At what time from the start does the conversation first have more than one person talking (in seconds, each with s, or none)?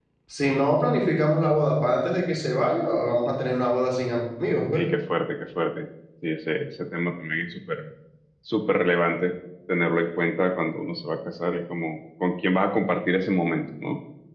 none